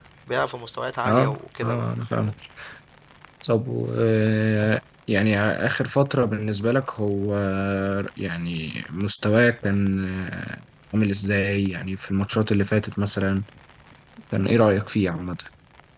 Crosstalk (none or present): present